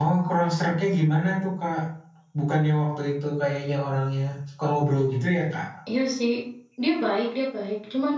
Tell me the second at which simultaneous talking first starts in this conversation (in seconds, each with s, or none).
none